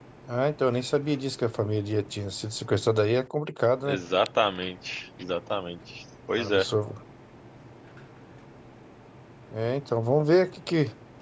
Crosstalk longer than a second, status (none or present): none